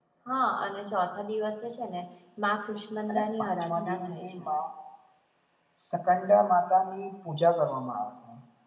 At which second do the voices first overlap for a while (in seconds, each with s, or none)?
3.1 s